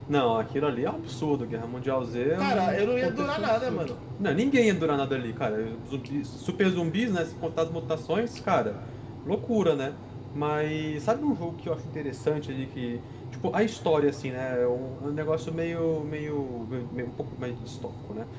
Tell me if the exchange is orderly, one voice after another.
No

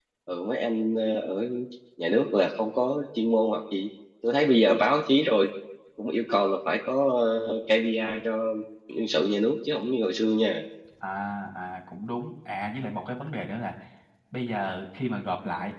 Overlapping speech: No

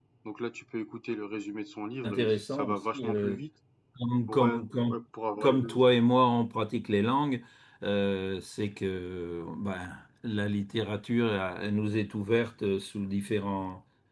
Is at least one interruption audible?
Yes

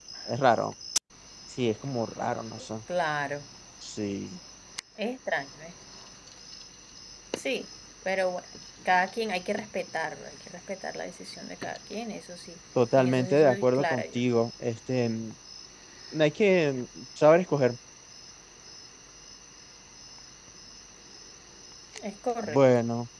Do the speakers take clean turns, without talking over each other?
No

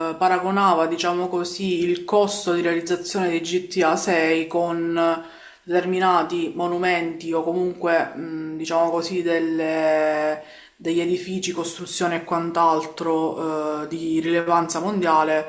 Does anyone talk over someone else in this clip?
No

